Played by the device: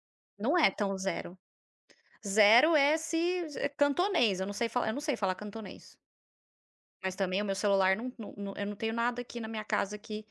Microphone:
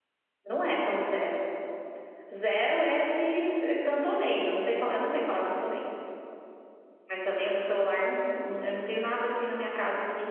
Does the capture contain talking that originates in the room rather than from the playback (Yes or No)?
No